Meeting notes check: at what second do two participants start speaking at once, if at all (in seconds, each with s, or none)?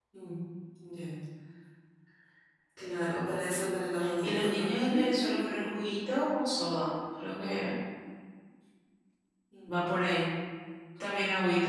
4.0 s